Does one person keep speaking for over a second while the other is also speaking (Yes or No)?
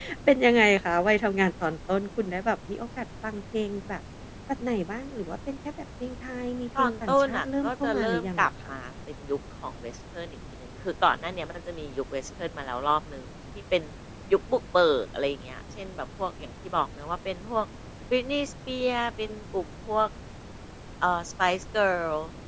Yes